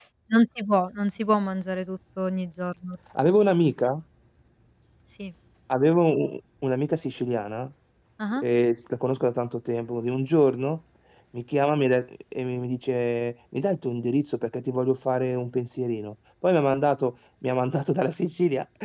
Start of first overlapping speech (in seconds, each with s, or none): none